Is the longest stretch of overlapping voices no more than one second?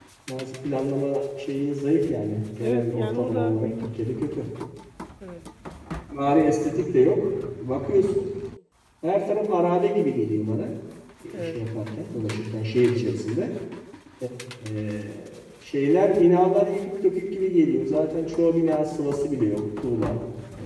No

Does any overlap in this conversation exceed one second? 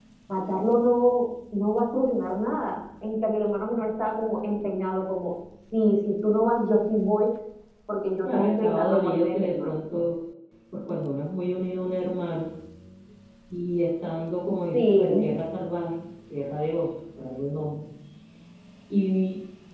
Yes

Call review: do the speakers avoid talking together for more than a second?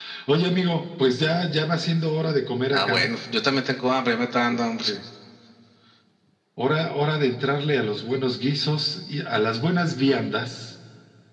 Yes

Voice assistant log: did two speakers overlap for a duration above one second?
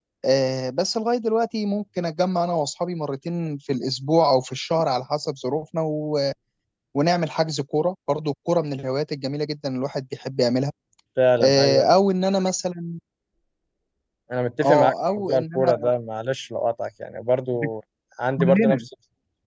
Yes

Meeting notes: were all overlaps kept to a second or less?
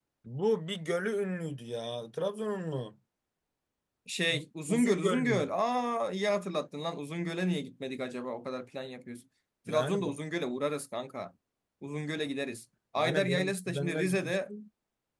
No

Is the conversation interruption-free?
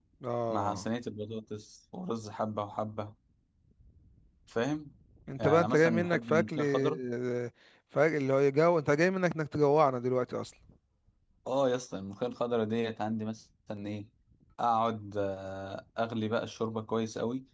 No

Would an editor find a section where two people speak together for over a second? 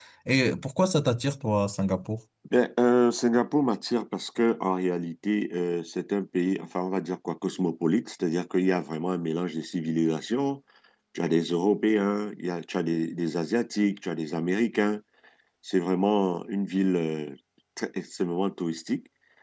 No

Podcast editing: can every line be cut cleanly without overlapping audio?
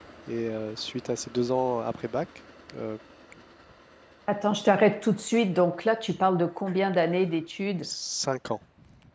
Yes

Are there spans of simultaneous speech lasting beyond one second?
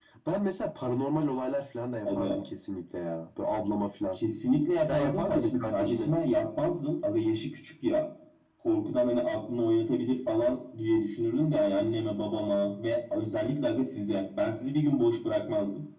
Yes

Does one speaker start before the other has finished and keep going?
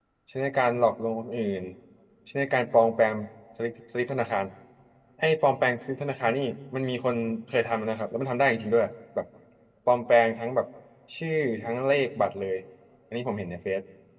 No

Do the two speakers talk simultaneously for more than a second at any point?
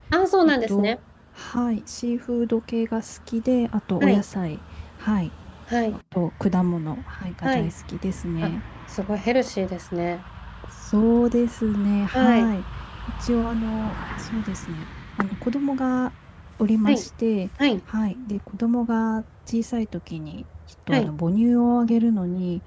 No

